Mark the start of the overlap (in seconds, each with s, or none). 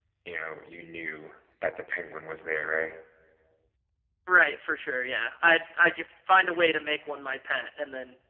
none